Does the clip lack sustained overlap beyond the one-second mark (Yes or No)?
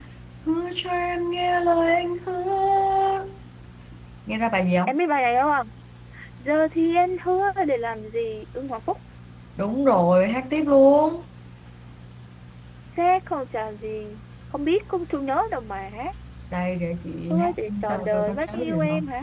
No